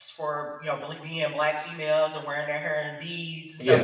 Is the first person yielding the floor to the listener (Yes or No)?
No